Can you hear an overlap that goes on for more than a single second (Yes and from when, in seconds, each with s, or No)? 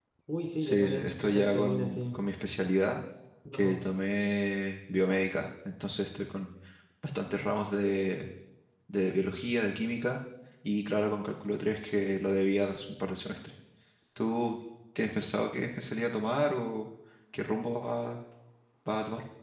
Yes, from 0.6 s